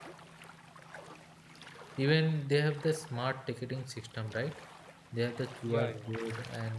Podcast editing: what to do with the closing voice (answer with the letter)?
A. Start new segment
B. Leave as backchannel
B